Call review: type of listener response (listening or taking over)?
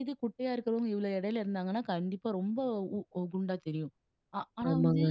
listening